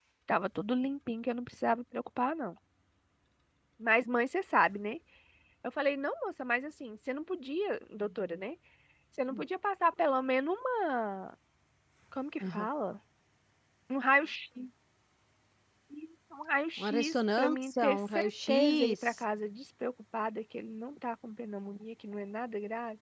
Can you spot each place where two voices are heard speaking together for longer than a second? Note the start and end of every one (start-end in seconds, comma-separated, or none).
16.8-19.2